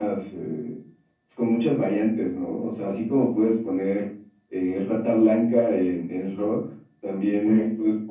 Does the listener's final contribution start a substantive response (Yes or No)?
No